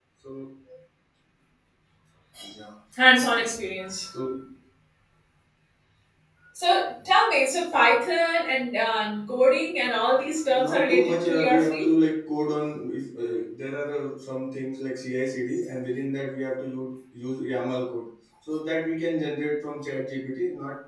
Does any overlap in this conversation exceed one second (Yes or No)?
Yes